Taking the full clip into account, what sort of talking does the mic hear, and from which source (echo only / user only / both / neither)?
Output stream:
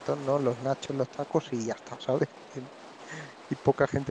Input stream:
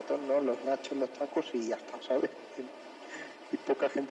echo only